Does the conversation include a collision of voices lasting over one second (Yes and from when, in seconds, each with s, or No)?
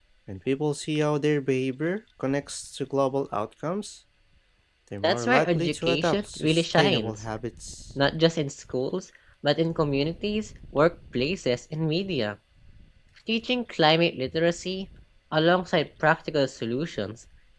Yes, from 5.0 s